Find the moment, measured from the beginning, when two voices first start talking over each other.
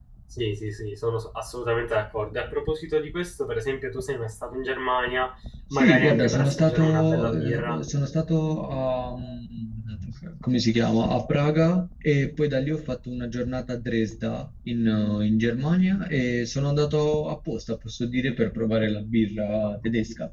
5.7 s

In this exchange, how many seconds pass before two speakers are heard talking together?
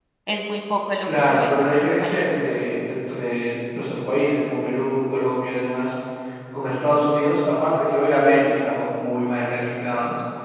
1.0 s

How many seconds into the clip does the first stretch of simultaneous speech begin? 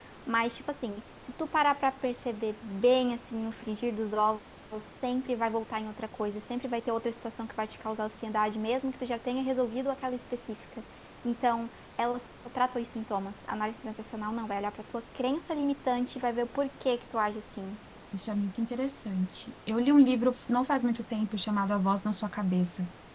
none

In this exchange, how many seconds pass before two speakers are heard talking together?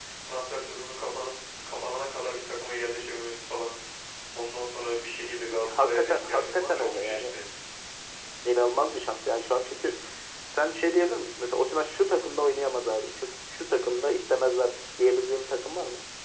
5.7 s

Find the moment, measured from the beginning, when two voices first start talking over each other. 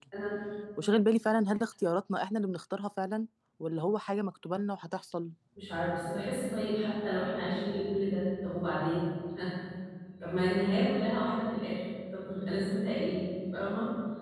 none

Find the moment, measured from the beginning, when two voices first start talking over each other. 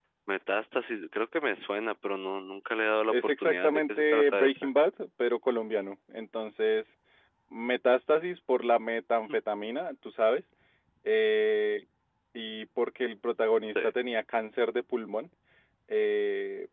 3.1 s

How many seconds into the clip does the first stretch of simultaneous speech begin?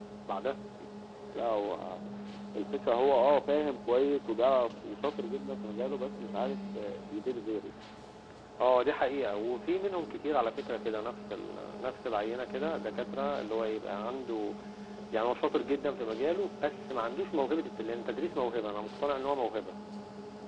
none

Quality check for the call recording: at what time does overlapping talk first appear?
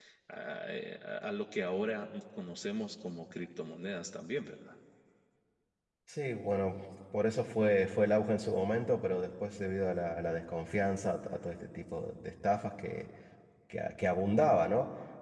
none

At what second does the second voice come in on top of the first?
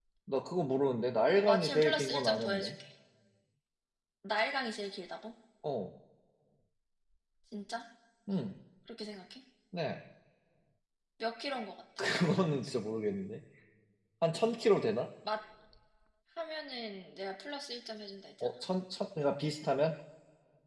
1.4 s

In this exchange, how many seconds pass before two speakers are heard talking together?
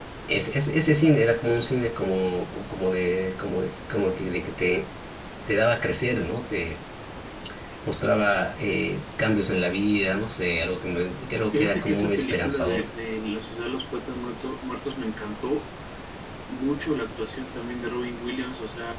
11.5 s

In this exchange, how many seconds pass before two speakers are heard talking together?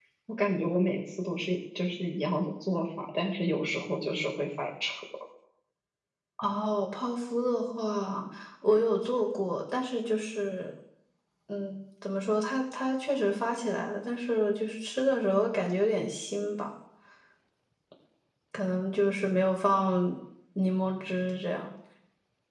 none

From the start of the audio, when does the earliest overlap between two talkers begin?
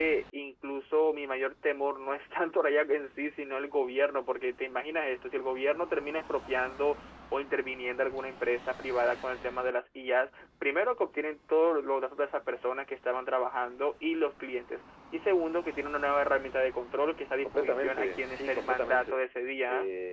17.4 s

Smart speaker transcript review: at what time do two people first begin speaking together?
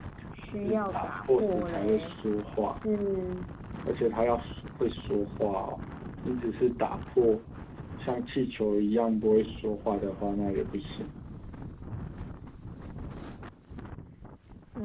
0.6 s

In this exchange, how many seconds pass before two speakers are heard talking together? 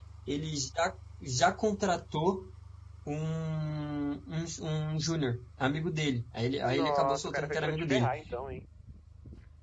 6.6 s

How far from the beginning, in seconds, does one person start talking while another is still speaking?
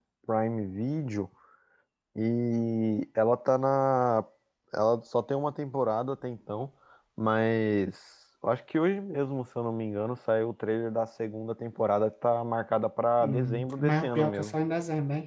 13.2 s

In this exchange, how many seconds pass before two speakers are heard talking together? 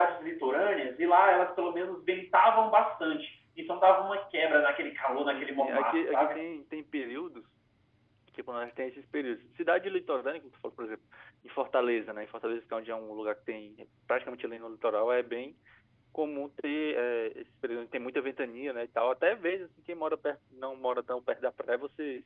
5.2 s

